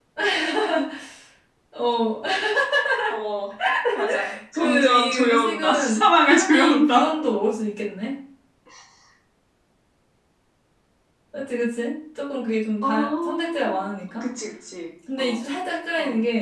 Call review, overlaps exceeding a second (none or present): present